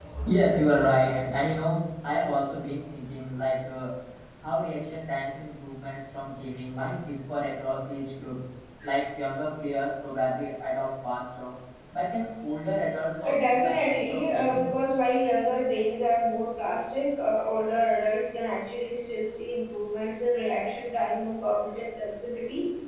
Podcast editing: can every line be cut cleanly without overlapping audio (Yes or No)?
No